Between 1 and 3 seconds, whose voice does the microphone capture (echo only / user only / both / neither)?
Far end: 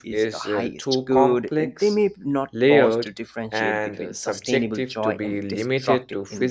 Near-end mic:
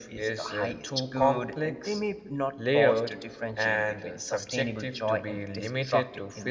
echo only